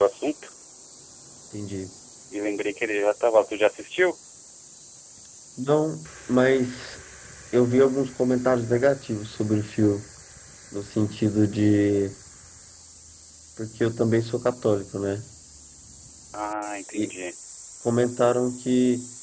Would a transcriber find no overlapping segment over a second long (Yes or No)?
Yes